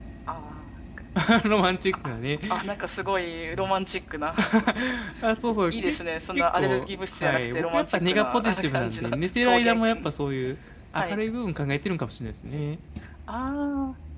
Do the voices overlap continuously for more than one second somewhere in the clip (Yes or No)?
Yes